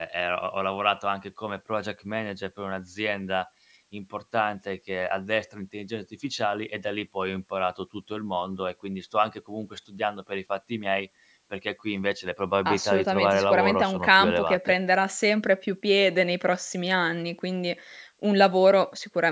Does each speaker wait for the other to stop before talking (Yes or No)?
No